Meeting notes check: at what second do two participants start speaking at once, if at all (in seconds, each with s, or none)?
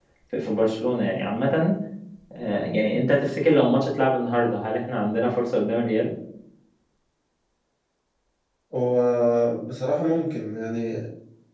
none